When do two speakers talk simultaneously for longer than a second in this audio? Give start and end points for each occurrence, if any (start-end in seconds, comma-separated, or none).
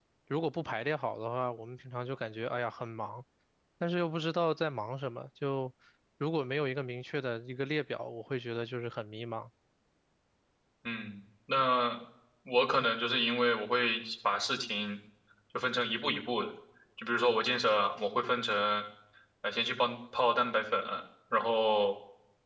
none